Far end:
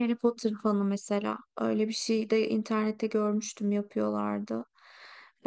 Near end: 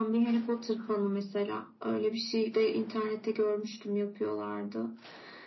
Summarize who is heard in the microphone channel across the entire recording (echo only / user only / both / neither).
echo only